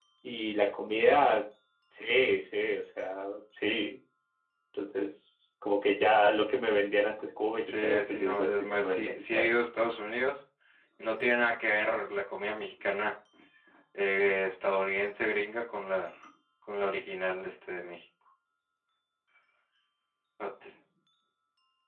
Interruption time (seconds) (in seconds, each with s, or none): 7.7 s